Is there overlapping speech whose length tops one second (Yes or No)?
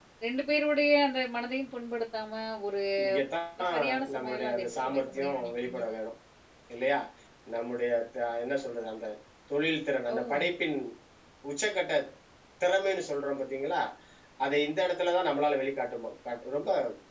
Yes